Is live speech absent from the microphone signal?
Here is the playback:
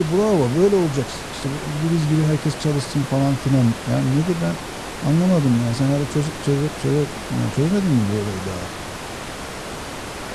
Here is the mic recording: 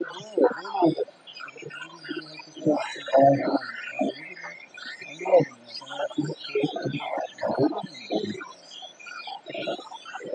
Yes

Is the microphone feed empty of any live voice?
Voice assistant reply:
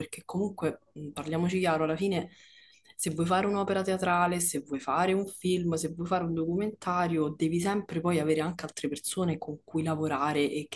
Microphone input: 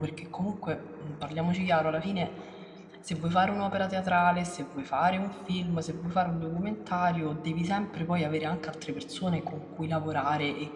Yes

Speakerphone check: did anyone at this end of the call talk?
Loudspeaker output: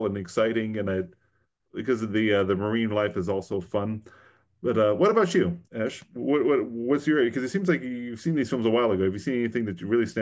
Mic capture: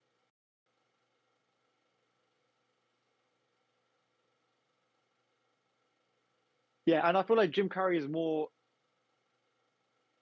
Yes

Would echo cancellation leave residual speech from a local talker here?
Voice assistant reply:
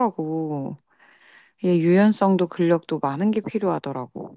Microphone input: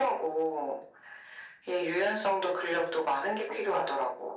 No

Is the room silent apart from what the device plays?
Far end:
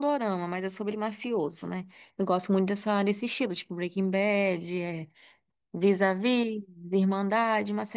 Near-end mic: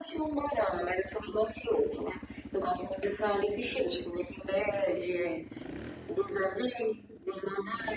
Yes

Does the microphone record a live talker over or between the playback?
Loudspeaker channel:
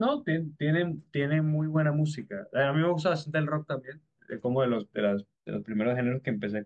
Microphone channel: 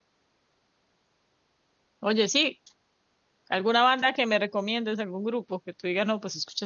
Yes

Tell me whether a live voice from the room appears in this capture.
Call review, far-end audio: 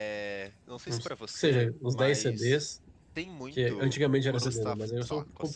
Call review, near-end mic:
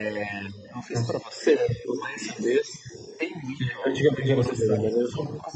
No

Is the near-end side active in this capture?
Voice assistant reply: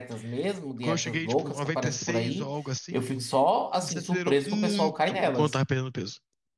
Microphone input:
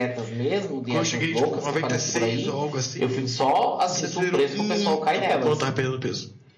No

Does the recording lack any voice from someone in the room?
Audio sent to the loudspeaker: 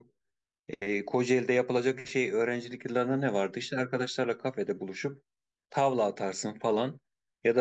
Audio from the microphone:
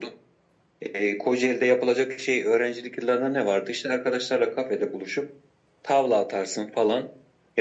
Yes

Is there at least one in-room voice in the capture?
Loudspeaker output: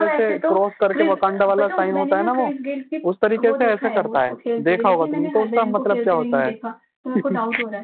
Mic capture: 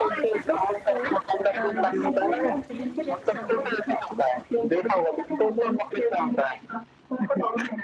Yes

